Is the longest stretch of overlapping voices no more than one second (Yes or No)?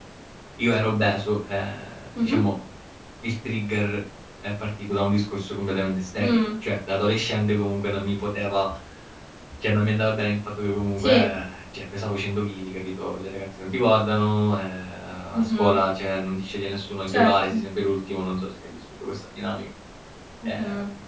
Yes